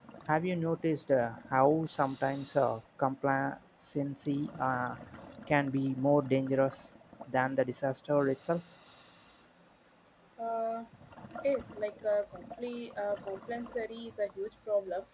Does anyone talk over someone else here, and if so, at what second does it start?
none

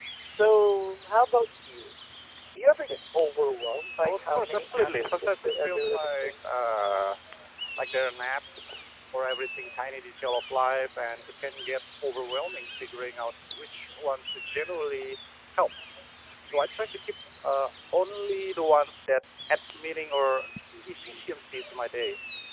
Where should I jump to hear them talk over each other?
4.0 s

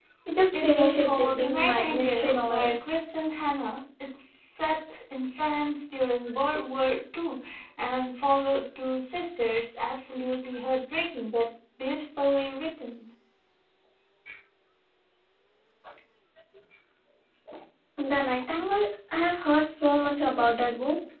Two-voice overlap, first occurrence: 0.5 s

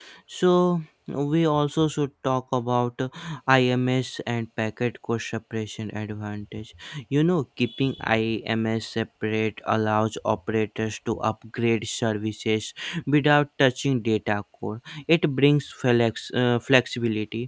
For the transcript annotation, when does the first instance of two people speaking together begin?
none

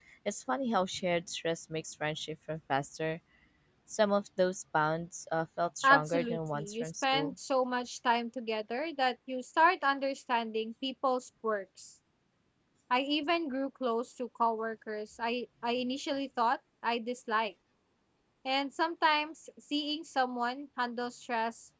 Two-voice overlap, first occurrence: 5.8 s

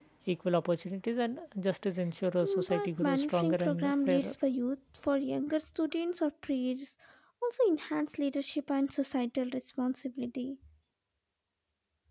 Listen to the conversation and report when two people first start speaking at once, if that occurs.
2.4 s

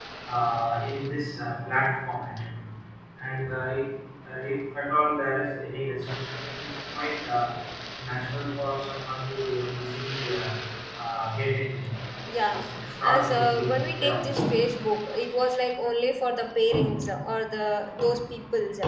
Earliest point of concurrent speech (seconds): 12.5 s

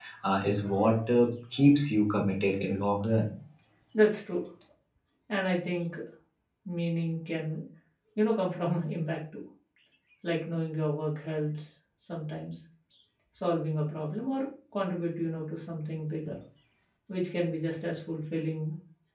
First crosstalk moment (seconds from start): none

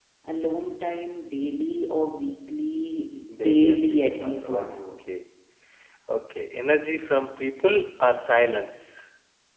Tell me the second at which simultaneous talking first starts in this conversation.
3.3 s

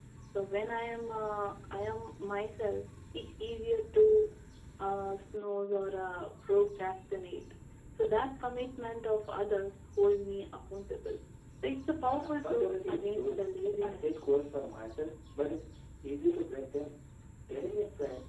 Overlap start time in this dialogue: 12.0 s

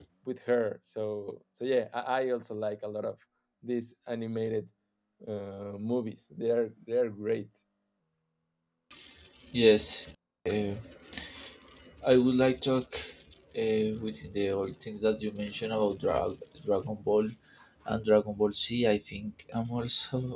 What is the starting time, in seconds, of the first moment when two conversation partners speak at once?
none

